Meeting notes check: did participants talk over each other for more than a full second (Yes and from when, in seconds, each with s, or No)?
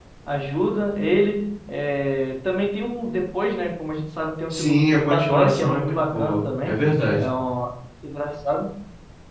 Yes, from 4.5 s